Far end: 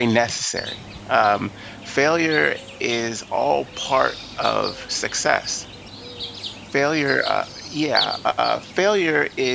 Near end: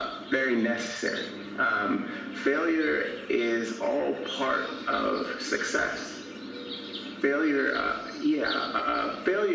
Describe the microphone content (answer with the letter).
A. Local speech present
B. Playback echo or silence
B